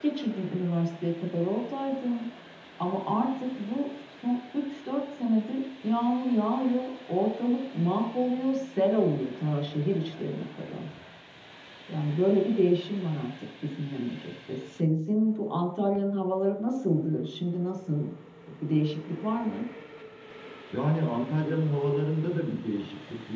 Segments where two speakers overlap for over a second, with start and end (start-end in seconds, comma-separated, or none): none